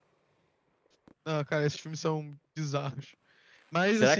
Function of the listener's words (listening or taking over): taking over